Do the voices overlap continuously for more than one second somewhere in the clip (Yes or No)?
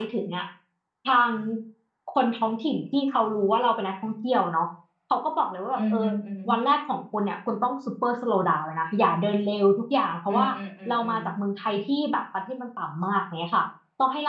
No